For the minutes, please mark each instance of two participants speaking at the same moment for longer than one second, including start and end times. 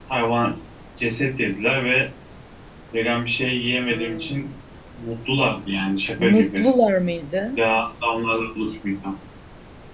none

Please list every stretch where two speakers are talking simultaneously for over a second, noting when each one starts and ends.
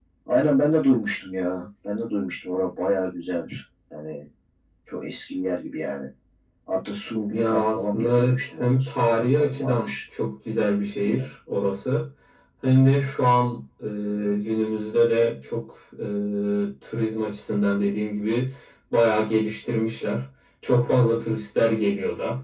7.3-9.9

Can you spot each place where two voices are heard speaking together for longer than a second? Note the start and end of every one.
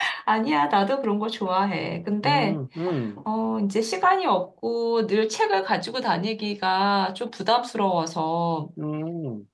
none

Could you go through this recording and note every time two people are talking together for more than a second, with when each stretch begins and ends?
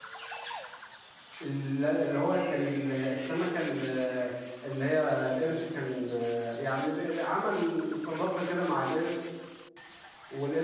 none

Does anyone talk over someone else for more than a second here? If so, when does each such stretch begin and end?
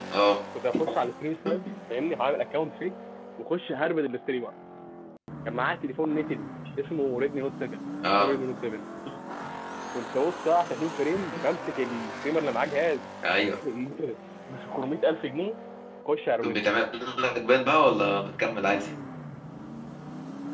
none

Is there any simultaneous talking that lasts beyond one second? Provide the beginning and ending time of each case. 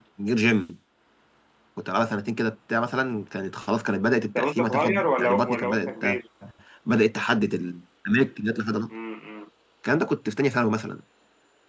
4.4-6.2

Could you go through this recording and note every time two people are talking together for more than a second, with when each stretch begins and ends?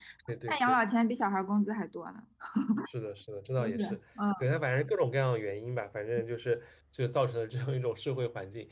none

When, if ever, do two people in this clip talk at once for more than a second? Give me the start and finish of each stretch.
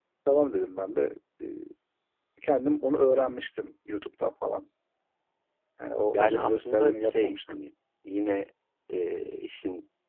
6.1-7.6

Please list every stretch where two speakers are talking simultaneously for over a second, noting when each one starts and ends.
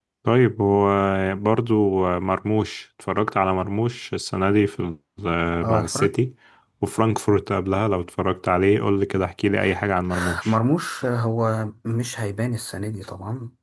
none

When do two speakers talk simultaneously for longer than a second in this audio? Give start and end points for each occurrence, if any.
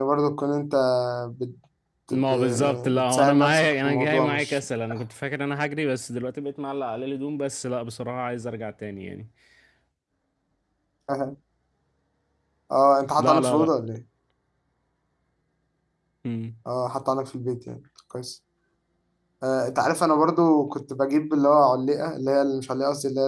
2.1-4.6

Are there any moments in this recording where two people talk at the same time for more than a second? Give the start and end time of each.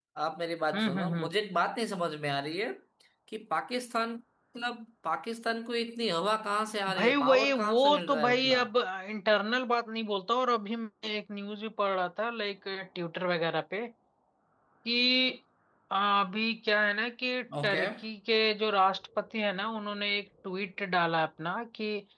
6.9-8.6

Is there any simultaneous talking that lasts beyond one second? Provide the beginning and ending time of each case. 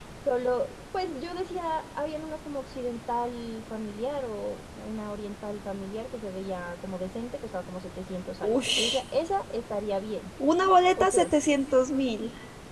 none

